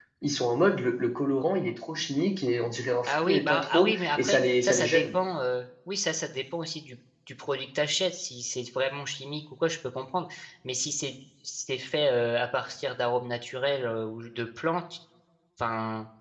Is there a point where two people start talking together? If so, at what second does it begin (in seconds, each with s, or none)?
3.0 s